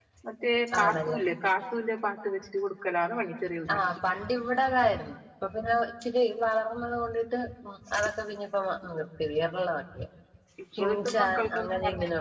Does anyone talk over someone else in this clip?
Yes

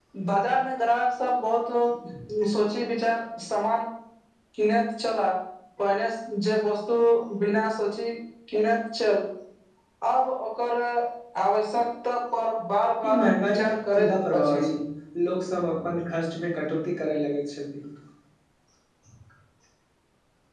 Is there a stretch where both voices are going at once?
Yes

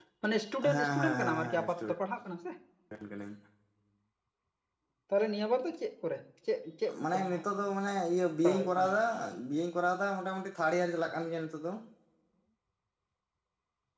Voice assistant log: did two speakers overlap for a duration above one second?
Yes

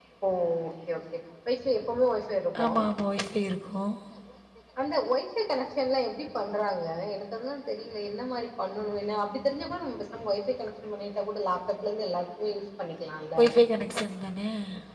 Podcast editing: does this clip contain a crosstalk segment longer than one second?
No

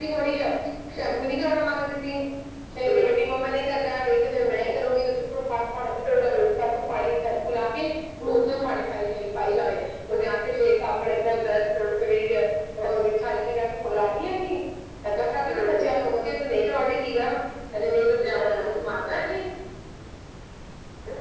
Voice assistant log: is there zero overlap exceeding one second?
Yes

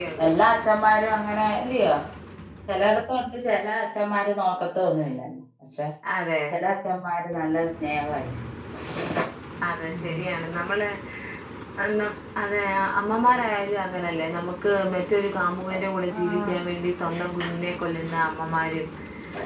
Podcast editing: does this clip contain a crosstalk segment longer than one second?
No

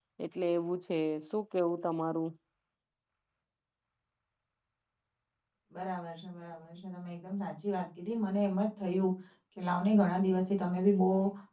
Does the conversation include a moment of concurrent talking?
No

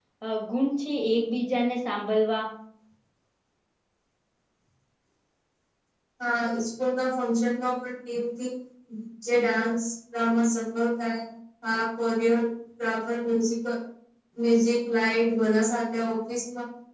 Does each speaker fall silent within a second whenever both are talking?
Yes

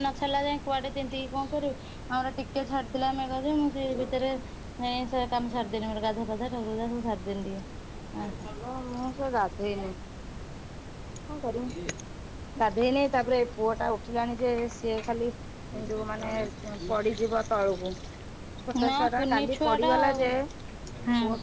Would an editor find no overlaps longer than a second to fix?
No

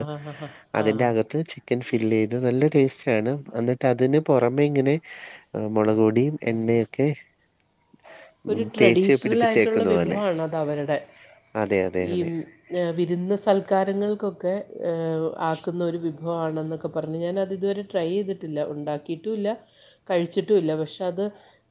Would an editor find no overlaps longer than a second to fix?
No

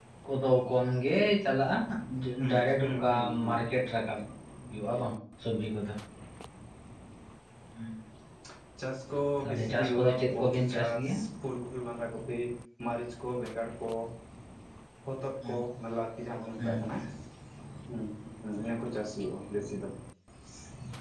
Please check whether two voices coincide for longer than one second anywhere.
Yes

